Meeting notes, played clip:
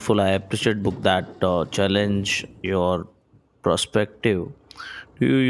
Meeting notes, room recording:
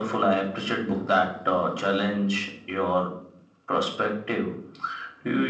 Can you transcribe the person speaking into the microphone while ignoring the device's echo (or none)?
none